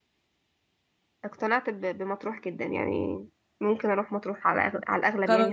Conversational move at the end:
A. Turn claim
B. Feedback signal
A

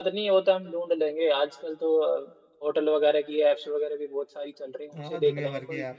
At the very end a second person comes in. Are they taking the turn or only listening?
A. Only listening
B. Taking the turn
B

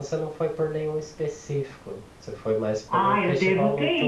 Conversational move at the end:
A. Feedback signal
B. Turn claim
B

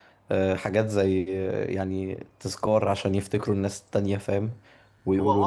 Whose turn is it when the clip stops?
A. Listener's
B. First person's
A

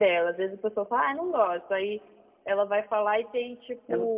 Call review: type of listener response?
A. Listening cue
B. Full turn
A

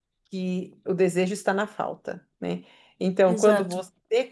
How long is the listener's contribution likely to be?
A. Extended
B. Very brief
B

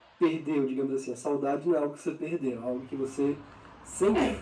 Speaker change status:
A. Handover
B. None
B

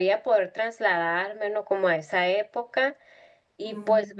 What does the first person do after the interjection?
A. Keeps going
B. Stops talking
A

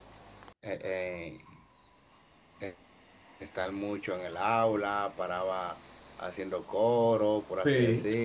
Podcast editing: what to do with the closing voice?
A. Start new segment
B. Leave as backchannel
B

